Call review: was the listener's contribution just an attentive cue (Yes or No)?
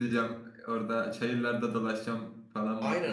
No